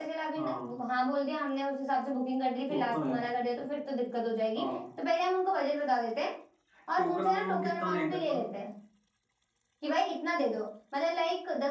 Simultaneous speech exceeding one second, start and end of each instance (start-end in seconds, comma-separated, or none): 7.0-8.4